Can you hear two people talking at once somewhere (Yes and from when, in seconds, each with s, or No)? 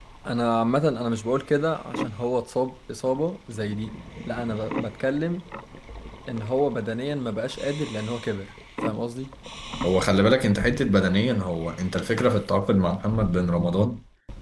No